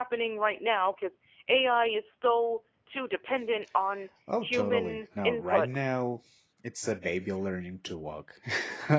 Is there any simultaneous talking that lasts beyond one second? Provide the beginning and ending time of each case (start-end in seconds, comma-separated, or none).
4.4-5.9